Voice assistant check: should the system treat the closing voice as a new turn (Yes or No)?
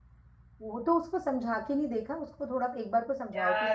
Yes